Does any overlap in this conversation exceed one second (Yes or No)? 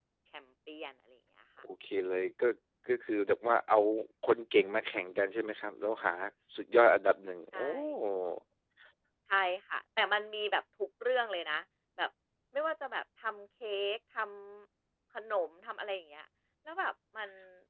No